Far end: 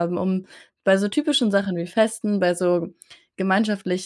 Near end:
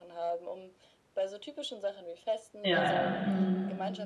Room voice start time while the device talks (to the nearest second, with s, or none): 3 s